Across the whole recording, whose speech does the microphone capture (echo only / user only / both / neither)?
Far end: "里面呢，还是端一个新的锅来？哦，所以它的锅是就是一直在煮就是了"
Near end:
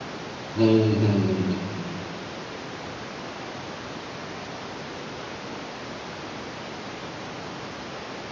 user only